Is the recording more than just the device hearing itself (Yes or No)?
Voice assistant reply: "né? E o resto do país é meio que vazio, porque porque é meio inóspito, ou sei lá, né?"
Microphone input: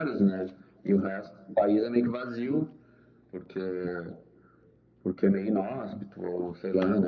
No